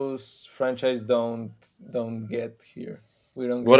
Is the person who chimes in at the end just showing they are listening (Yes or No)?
No